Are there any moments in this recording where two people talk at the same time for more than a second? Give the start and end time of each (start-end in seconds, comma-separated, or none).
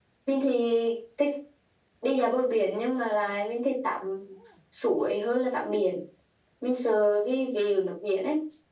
none